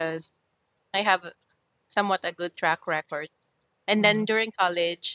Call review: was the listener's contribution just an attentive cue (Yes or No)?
Yes